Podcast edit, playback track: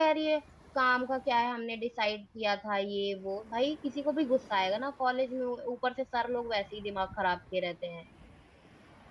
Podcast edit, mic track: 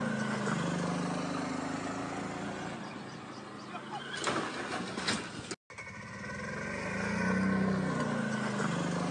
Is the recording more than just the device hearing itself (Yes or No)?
No